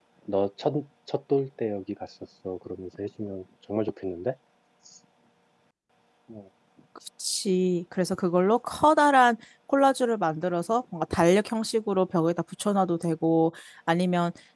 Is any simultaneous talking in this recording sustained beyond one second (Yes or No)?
No